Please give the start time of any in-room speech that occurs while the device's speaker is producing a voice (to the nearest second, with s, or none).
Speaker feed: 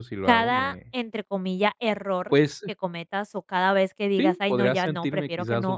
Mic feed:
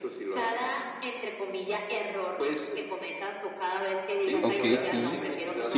4 s